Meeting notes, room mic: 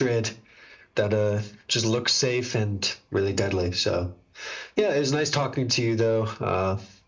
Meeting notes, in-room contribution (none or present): none